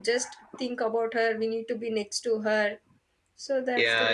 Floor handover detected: Yes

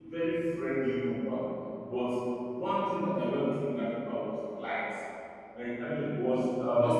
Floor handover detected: No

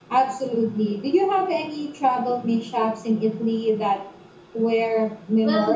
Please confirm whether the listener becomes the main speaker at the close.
Yes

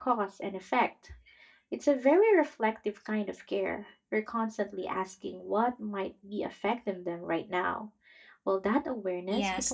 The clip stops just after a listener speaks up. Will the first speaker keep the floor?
No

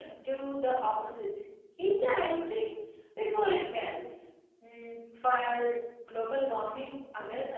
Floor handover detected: Yes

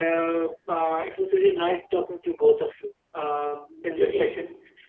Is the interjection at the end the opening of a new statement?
No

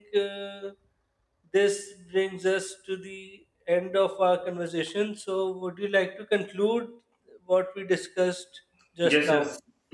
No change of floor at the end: No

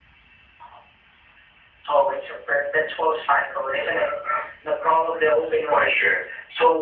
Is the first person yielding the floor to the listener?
Yes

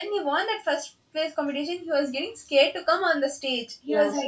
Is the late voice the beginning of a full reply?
Yes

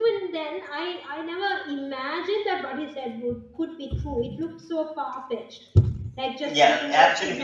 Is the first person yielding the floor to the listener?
Yes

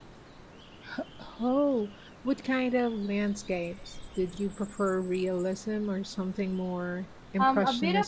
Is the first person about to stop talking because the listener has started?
Yes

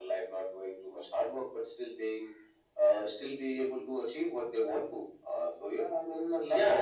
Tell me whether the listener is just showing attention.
No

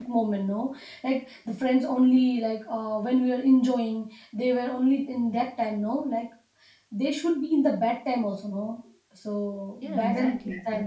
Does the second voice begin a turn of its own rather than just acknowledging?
Yes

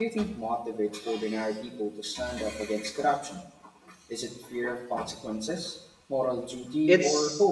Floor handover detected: Yes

